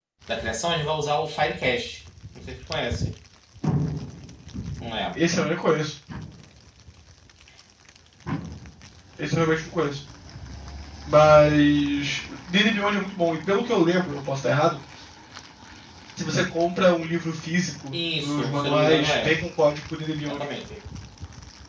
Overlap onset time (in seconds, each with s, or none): 17.9 s